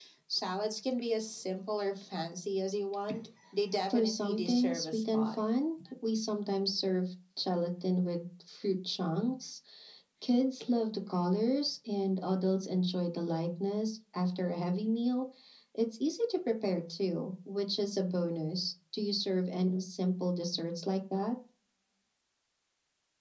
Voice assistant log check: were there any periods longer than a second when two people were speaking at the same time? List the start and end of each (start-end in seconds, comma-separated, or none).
3.9-5.4